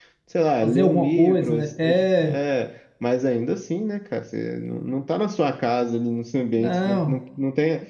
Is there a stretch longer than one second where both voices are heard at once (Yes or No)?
Yes